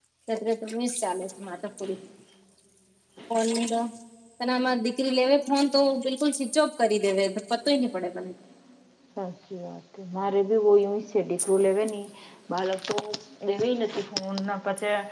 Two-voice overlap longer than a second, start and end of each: none

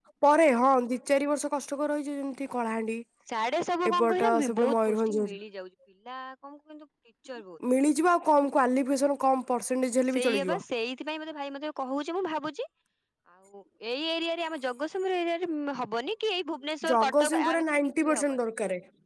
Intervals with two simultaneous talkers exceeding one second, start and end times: 3.9-5.2, 16.9-18.4

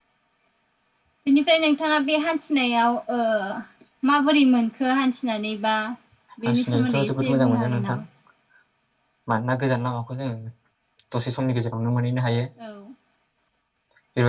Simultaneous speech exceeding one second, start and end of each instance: 6.5-8.0

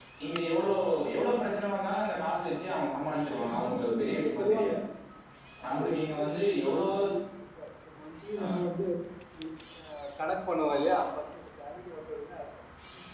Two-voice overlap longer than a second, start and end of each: 3.3-4.8, 5.7-6.8

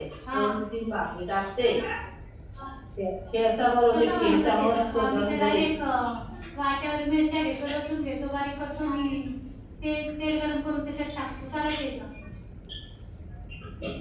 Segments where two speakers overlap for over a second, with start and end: 3.9-5.7

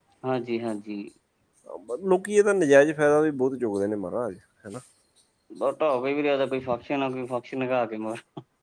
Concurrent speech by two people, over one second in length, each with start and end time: none

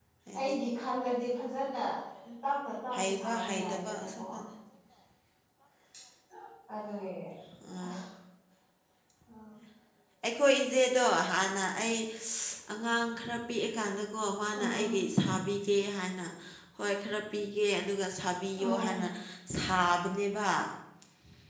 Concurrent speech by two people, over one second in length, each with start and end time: 3.0-4.2

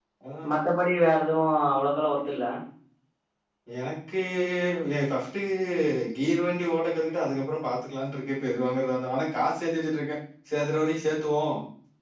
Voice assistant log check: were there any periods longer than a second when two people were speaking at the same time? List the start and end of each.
none

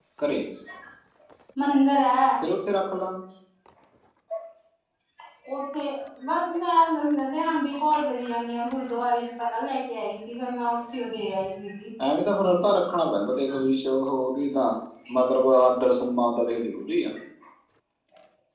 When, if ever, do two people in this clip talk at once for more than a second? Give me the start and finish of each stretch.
none

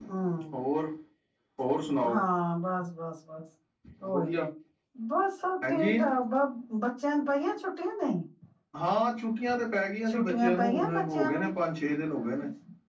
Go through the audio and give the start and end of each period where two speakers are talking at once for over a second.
10.1-11.5

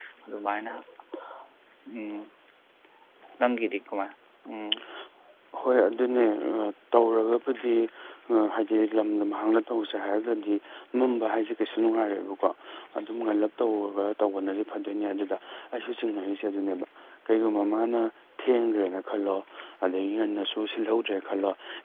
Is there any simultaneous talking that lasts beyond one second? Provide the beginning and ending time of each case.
none

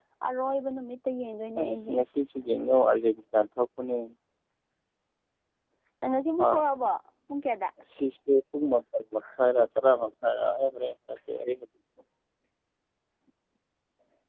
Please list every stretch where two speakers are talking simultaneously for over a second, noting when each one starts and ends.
none

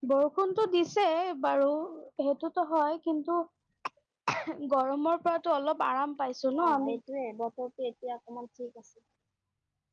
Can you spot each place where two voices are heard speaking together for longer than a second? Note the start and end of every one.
none

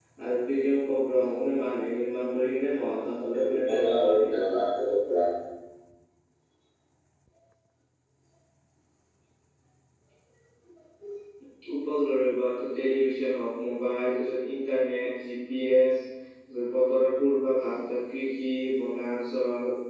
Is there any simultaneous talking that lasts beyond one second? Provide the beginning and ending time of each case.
3.3-4.5

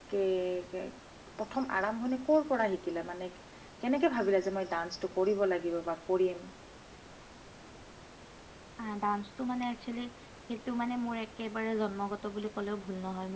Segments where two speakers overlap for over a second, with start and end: none

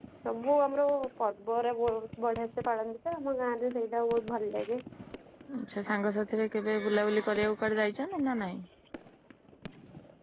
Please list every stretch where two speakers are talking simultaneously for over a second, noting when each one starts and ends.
none

